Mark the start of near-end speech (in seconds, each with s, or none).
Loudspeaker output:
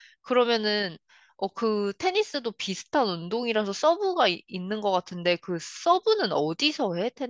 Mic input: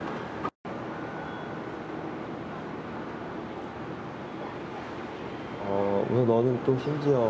5.5 s